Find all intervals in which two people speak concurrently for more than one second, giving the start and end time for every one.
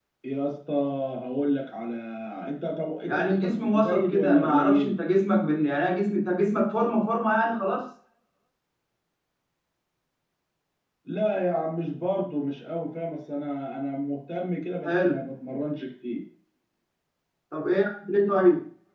3.1-5.0

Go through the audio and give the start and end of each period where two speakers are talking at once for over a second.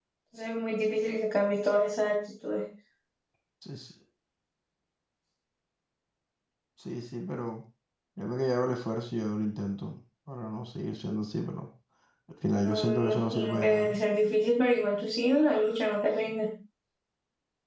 12.6-14.0

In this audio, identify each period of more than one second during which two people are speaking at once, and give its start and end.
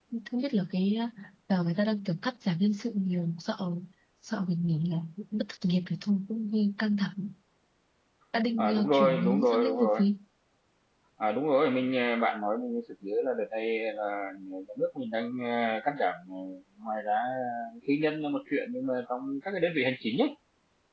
8.6-10.0

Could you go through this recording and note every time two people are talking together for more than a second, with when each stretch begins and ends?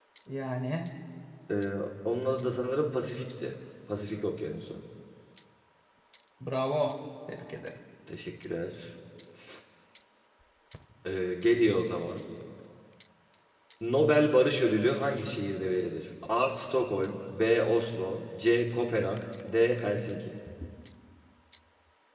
none

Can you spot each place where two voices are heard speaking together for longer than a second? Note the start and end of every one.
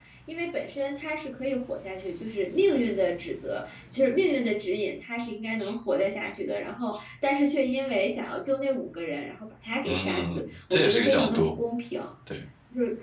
9.8-11.6

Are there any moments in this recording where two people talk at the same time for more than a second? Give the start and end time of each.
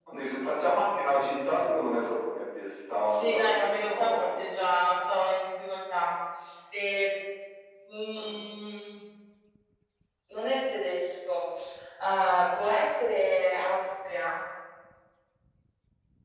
3.0-4.4

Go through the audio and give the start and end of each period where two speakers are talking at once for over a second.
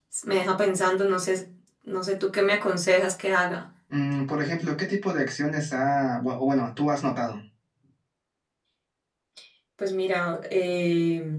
none

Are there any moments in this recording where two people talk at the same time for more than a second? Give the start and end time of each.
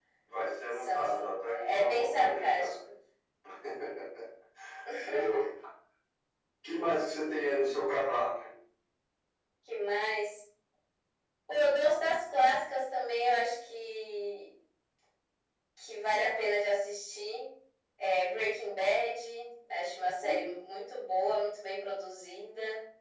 0.8-2.7

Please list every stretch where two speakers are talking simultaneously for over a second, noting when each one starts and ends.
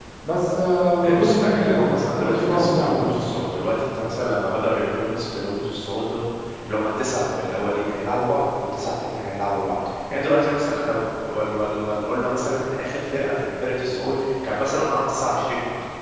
1.0-3.2

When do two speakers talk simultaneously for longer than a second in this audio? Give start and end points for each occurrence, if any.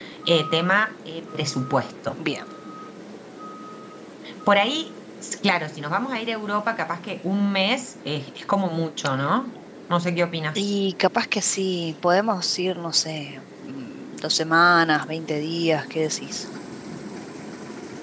none

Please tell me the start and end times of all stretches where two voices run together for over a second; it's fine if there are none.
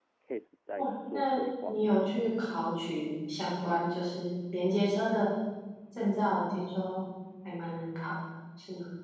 0.8-2.0

